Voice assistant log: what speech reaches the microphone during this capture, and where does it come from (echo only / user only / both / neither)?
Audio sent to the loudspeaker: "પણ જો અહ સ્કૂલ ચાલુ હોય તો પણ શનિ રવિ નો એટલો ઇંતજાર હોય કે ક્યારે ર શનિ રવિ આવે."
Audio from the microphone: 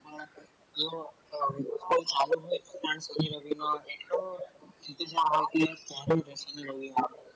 echo only